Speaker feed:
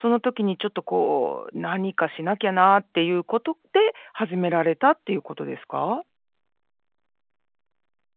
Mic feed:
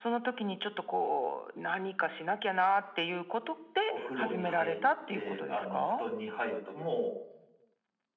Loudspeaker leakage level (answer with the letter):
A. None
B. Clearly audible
B